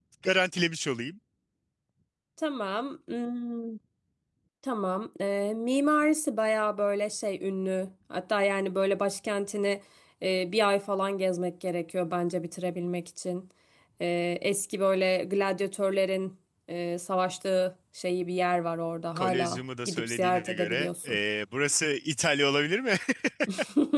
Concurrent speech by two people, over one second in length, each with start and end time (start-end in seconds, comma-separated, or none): 19.1-21.2